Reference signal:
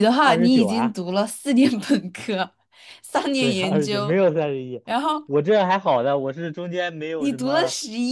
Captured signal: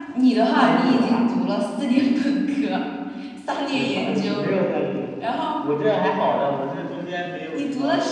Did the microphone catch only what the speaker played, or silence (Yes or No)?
Yes